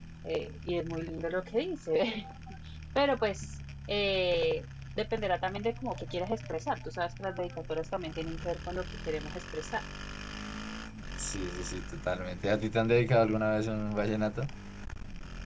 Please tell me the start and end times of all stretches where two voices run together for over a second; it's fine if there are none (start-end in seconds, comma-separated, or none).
none